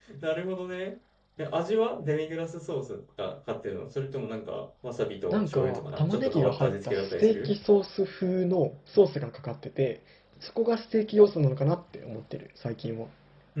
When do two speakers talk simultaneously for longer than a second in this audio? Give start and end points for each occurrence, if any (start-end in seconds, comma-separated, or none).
5.3-7.5